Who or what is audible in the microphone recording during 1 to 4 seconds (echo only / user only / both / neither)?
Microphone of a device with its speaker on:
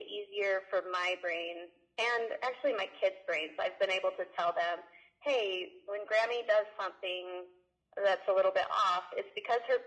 echo only